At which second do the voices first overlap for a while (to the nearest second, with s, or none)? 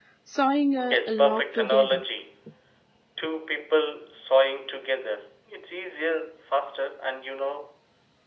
1 s